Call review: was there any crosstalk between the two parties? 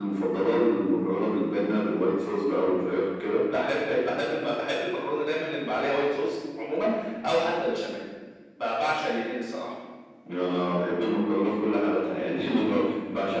No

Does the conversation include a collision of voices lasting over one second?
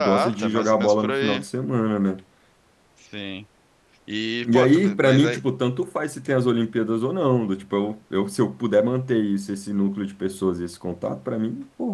Yes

